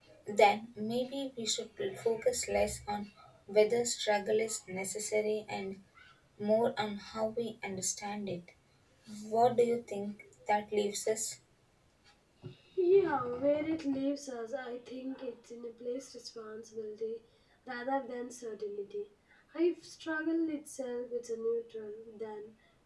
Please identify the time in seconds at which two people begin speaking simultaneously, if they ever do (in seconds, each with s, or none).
none